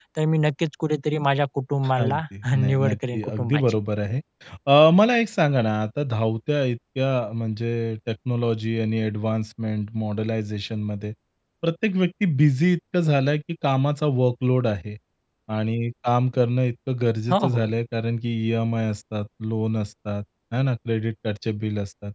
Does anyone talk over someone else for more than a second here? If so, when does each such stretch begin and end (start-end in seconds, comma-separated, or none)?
1.9-3.6